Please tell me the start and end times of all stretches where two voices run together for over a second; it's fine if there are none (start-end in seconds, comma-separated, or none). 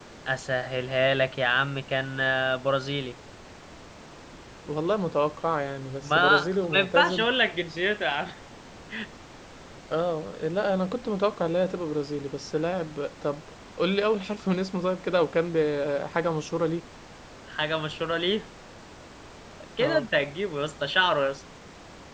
6.0-7.2